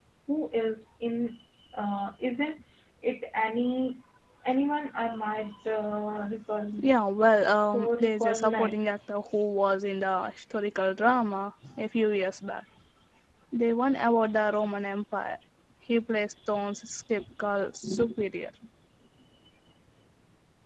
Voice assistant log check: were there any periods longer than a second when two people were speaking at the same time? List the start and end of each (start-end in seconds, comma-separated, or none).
7.5-8.9